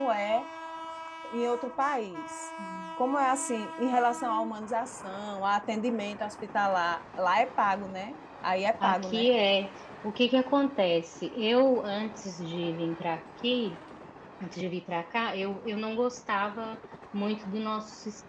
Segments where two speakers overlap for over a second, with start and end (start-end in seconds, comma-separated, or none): none